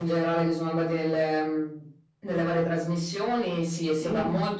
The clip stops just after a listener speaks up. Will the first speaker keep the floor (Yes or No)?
Yes